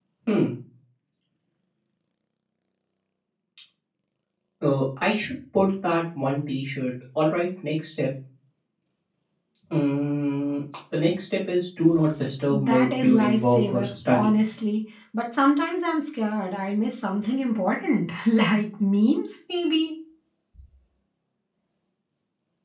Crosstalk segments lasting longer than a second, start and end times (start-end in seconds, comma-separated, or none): 12.5-14.3